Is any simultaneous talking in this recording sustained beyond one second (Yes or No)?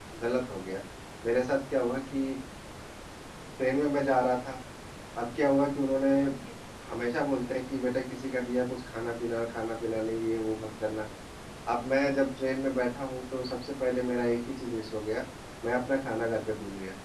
No